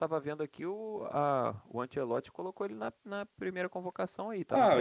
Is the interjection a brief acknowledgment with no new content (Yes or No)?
No